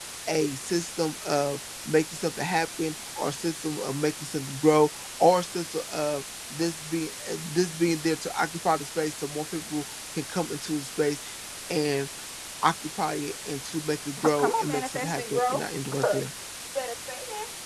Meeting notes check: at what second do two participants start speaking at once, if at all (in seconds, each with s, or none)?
14.2 s